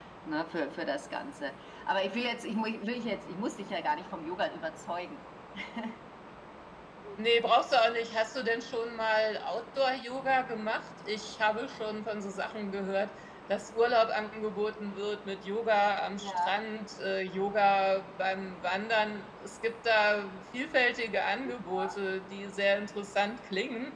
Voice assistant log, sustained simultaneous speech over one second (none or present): none